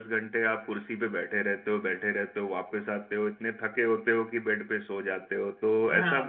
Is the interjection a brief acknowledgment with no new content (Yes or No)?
No